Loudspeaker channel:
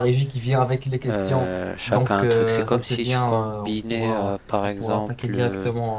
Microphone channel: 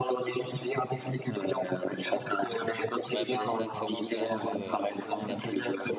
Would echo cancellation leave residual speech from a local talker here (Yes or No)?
Yes